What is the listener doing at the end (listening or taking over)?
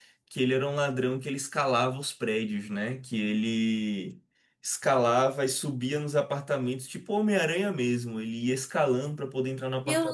taking over